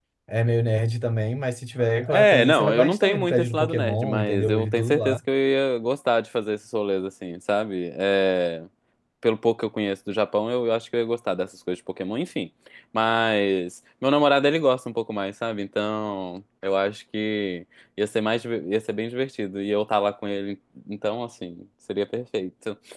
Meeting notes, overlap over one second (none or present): present